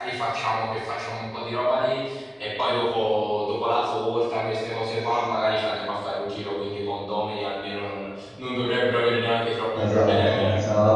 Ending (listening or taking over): taking over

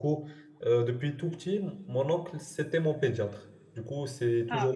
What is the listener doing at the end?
listening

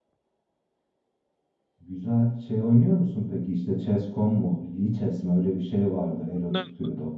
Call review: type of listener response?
taking over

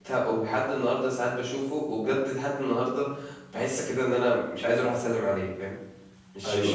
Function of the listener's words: taking over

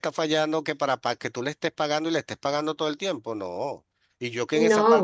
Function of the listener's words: listening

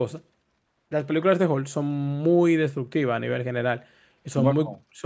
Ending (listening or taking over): listening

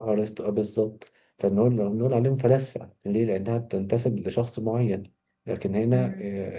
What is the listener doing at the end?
listening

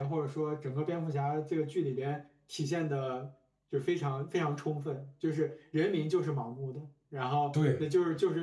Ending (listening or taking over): listening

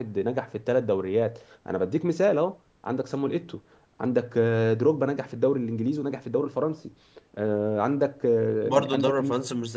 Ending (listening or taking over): taking over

